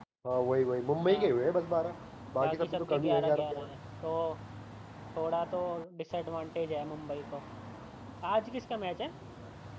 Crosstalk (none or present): present